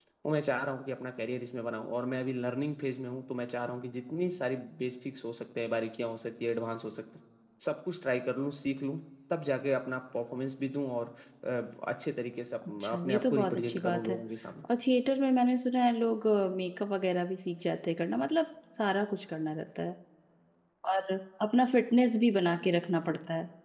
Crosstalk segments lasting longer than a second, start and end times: 12.7-14.1

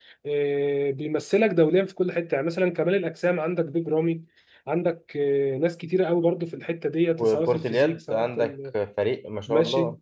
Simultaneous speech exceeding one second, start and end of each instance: 7.2-8.5

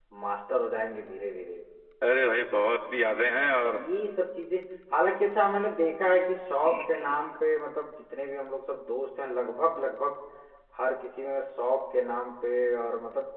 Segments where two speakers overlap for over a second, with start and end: none

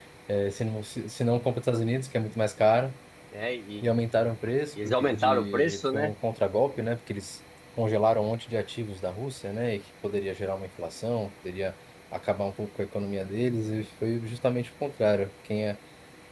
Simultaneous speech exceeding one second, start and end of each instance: 4.8-6.1

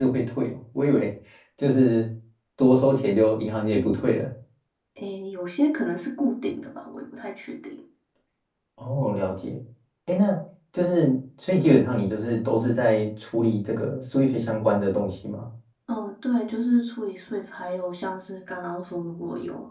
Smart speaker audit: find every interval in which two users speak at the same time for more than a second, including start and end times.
none

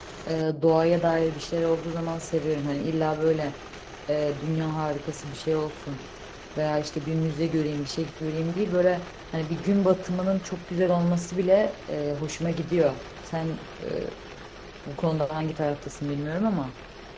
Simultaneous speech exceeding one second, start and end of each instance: none

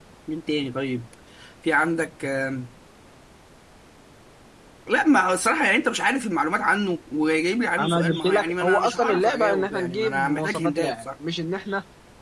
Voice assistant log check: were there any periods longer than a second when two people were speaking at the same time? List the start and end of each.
7.8-11.0

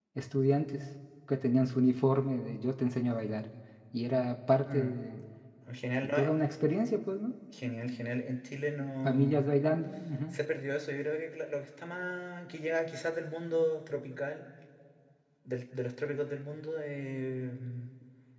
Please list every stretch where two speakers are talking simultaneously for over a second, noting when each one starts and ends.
none

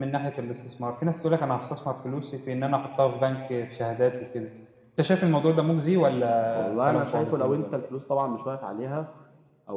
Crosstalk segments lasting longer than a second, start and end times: 6.5-7.8

